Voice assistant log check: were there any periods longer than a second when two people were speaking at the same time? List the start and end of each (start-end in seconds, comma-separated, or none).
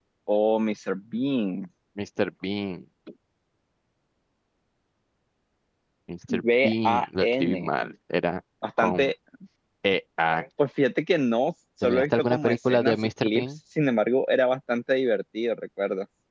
6.3-7.7, 11.8-13.4